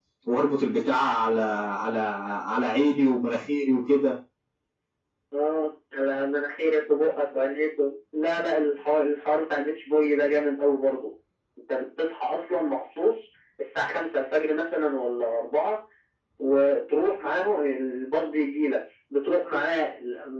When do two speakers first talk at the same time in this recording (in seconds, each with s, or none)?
none